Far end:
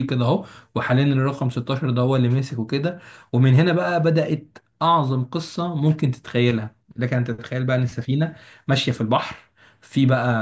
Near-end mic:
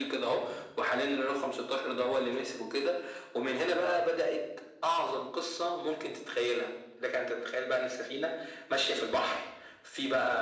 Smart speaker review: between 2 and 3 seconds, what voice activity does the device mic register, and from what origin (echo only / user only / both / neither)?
echo only